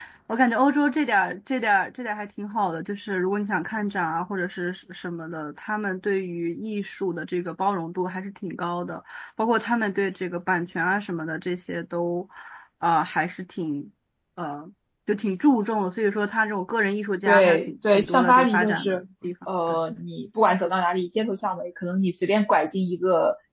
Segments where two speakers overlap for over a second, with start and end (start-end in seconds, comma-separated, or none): 17.3-19.0